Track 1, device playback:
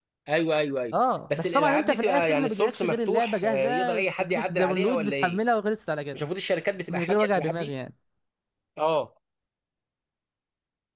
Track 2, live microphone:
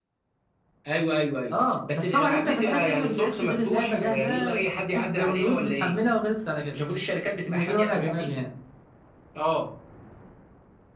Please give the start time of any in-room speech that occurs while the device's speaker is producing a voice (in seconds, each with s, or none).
none